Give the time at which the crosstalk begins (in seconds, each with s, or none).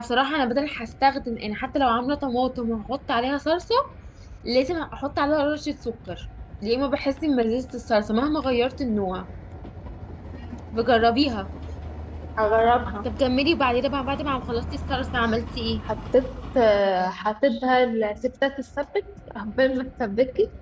none